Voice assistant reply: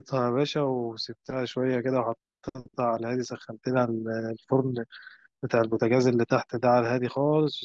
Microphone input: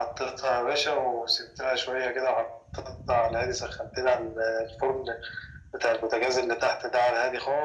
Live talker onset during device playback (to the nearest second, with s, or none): none